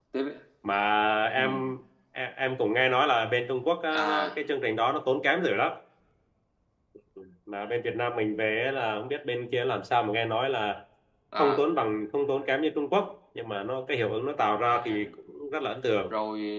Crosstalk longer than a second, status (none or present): none